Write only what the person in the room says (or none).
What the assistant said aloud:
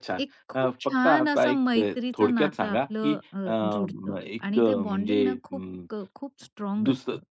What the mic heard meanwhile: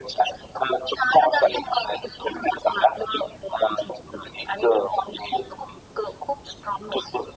none